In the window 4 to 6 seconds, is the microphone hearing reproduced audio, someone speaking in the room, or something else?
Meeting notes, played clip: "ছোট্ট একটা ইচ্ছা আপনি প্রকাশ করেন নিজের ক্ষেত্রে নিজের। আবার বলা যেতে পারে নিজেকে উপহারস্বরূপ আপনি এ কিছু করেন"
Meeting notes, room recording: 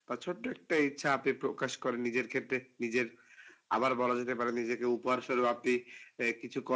echo only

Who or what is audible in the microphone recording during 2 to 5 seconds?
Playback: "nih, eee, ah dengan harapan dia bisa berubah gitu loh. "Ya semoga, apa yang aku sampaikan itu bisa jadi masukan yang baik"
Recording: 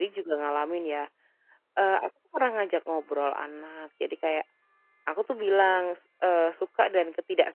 user only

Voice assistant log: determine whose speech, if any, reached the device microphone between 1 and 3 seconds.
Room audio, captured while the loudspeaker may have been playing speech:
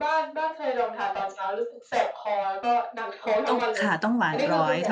echo only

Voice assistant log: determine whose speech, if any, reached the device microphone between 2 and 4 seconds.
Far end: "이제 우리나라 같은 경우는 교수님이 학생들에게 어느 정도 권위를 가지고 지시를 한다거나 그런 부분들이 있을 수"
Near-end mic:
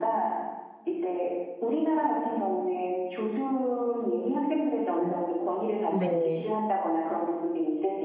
echo only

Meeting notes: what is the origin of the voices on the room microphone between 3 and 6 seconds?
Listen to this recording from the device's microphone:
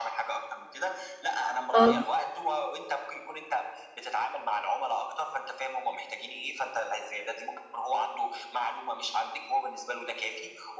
echo only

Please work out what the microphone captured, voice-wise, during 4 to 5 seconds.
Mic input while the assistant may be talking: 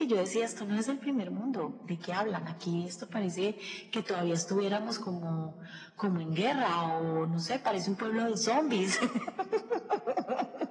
echo only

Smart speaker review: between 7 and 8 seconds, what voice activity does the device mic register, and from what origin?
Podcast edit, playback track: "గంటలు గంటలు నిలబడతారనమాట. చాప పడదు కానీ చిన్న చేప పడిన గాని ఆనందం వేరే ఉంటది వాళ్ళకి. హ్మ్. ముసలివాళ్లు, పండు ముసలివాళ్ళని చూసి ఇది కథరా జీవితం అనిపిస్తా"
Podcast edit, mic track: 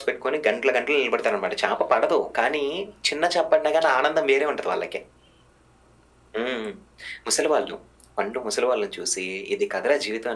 echo only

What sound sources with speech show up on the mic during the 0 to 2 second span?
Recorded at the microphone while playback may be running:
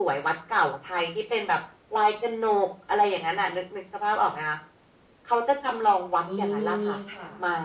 echo only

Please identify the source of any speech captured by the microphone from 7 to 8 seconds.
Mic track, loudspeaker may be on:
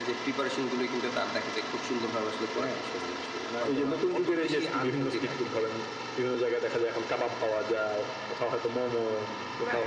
echo only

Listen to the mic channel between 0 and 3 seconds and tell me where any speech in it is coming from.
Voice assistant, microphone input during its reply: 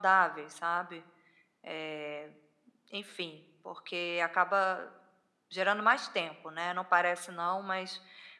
echo only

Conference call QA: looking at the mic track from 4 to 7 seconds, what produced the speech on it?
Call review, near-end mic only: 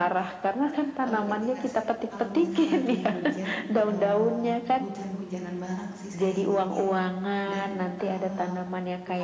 both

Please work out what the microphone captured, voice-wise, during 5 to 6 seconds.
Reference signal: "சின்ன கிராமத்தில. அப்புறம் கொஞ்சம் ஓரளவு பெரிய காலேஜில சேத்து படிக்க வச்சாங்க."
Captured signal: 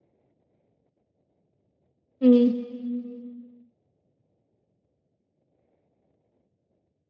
neither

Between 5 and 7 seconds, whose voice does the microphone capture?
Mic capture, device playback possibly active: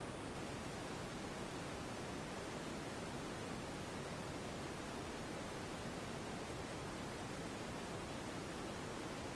neither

